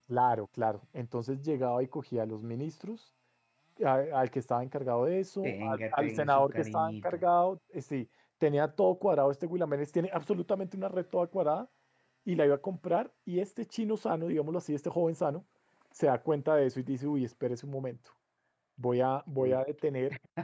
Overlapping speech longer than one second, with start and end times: 5.4-7.2

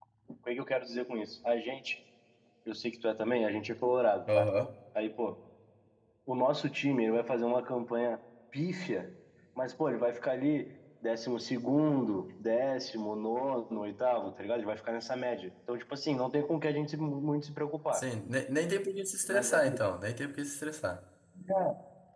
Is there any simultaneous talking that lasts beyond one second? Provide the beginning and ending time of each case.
none

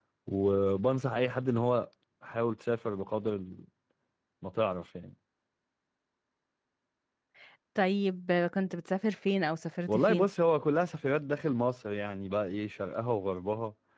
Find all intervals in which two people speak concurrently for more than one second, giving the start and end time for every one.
none

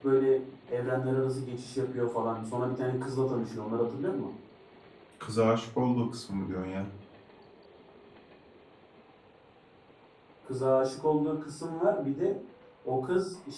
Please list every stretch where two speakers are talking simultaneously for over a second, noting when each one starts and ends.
none

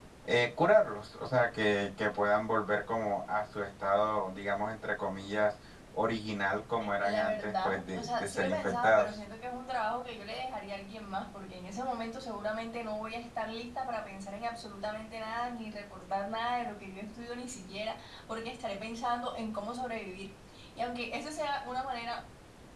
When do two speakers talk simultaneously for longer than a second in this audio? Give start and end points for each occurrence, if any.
7.0-9.1

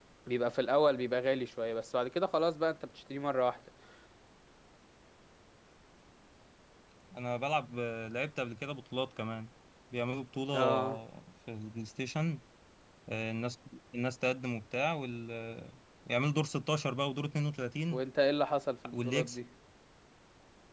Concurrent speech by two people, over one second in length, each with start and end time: none

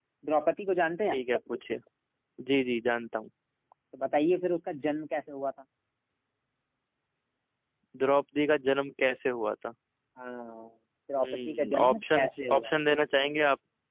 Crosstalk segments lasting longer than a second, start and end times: 11.2-12.7

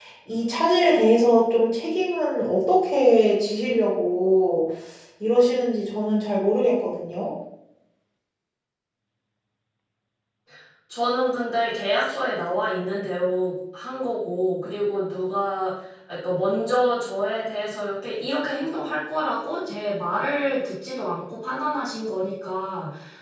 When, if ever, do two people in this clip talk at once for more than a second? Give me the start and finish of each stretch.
none

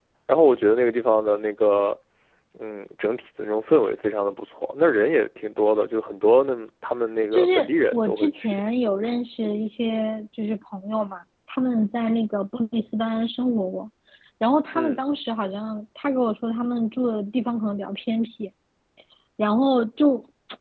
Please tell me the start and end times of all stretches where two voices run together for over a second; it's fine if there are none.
7.3-8.6

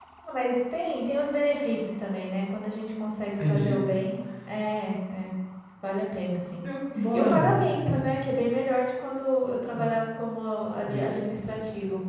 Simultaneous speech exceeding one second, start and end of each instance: none

